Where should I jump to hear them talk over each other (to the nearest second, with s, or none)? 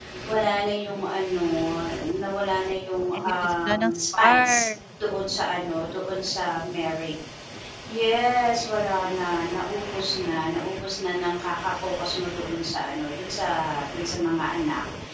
3 s